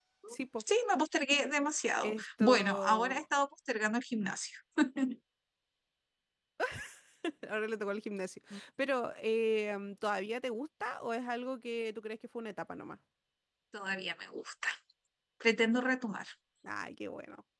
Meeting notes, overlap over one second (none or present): present